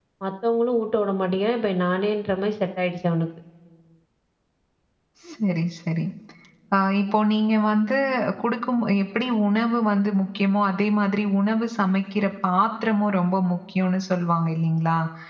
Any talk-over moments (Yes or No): No